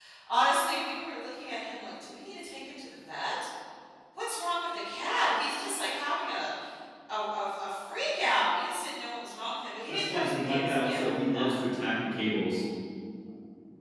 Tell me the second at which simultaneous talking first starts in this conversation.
9.9 s

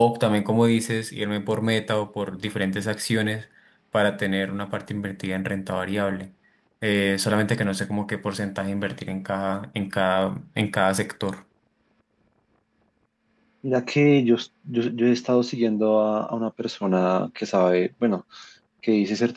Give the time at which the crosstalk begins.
none

